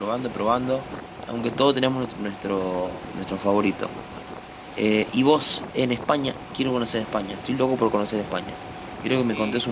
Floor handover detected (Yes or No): No